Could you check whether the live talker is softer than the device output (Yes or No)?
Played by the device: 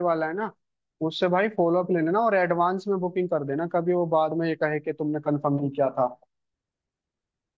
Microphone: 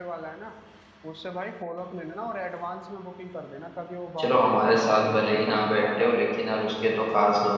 No